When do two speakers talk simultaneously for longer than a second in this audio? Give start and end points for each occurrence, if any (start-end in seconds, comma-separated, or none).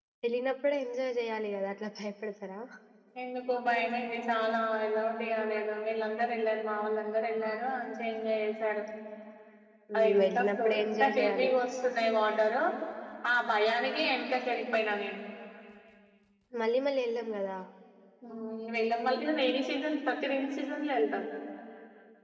10.0-11.5